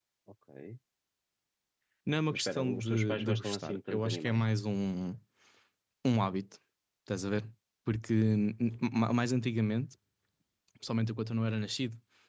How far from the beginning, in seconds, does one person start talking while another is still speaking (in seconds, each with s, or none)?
2.3 s